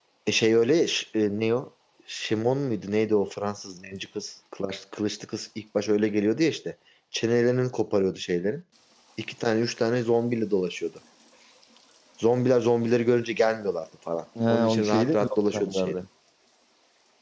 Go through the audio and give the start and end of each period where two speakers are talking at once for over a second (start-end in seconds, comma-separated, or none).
14.5-15.9